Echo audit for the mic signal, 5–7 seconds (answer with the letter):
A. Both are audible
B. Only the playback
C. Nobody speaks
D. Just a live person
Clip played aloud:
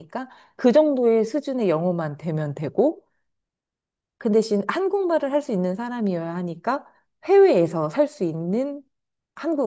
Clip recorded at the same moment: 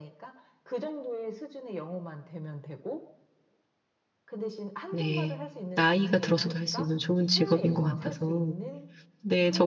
A